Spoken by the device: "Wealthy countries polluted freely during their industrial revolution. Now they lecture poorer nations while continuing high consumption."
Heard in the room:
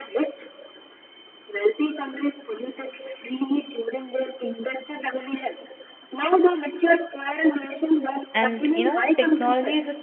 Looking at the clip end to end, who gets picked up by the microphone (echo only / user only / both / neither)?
both